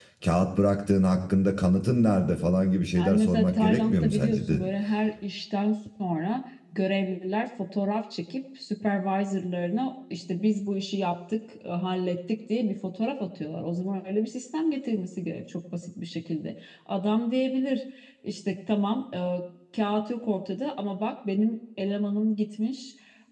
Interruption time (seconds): 2.9 s

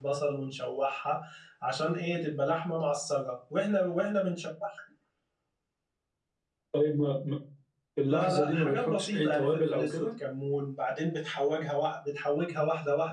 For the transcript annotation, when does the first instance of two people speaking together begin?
8.1 s

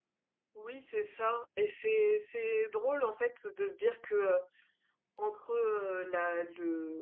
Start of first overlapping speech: none

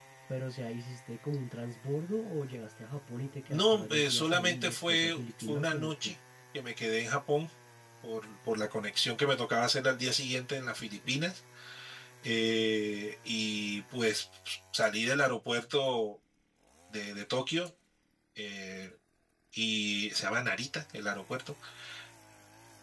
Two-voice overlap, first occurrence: 3.5 s

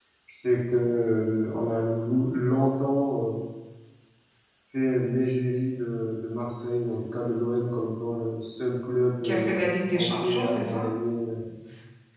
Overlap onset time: 9.2 s

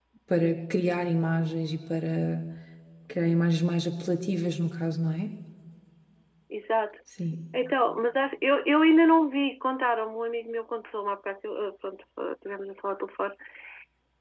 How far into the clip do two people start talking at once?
none

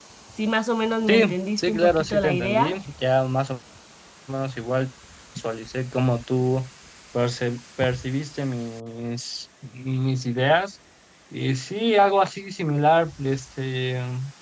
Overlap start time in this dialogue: 1.1 s

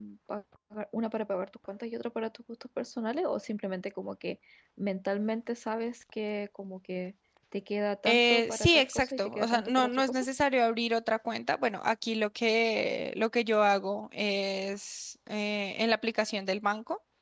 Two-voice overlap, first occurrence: 8.1 s

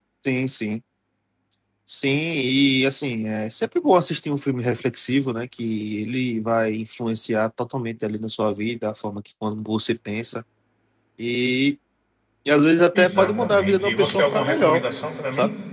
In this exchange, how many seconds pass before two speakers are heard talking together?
12.9 s

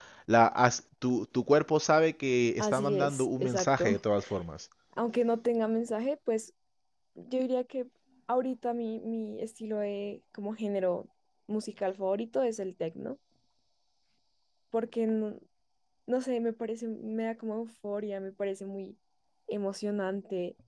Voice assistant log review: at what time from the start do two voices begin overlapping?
2.6 s

